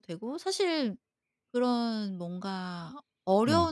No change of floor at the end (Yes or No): Yes